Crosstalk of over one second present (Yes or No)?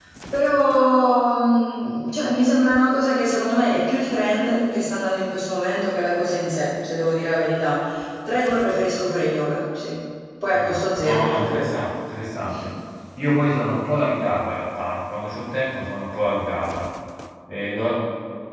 Yes